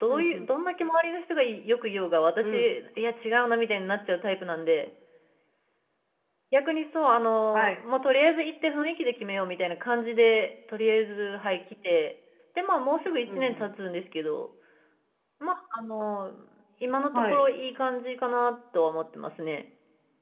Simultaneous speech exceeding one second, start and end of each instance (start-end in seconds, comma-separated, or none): none